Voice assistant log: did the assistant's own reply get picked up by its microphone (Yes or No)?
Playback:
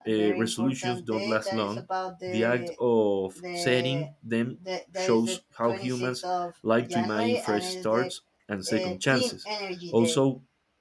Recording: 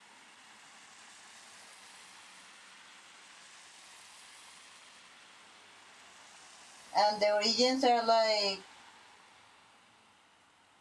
No